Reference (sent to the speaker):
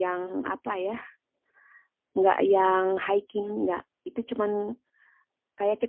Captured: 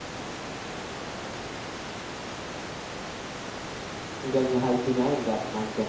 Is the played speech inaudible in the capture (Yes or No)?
Yes